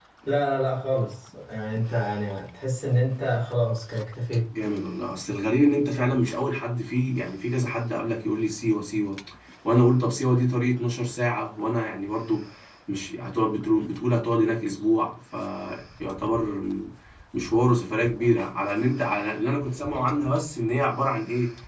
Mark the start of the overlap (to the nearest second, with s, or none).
none